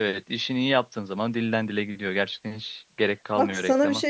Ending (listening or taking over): taking over